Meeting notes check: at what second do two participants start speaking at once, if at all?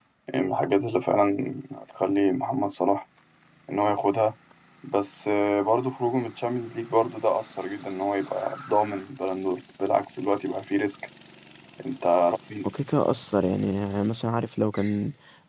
none

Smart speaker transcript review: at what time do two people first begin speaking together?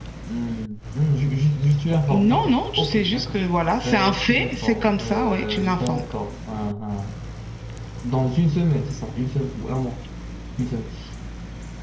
2 s

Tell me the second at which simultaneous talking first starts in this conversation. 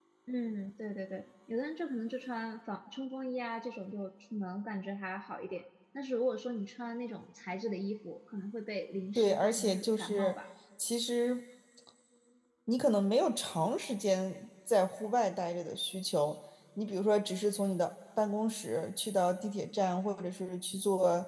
9 s

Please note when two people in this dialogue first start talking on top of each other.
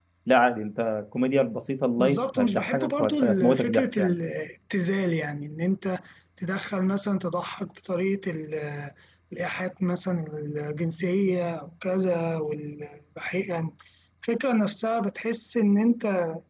2 s

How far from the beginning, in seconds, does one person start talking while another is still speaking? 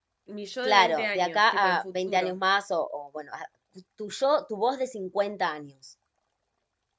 1 s

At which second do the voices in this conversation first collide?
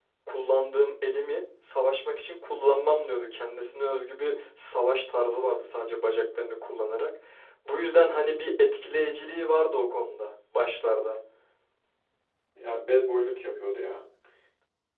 none

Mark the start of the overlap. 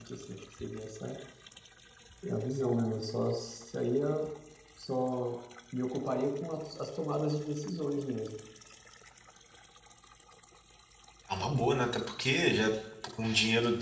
none

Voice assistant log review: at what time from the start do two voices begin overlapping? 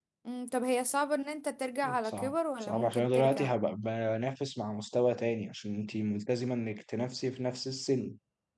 2 s

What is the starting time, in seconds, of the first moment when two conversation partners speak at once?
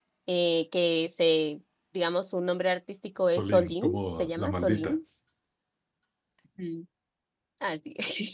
3 s

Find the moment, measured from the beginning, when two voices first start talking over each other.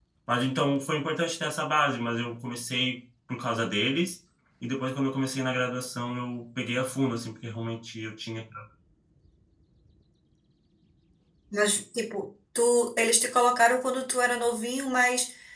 none

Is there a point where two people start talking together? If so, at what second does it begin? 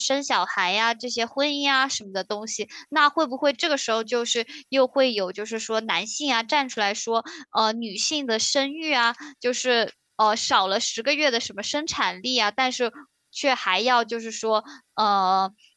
none

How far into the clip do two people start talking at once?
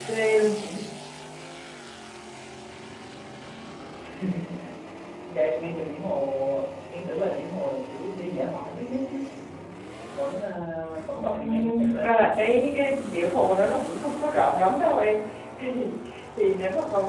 11 s

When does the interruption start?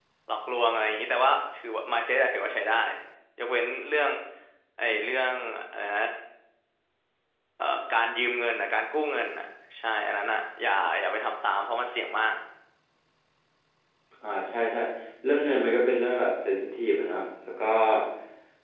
none

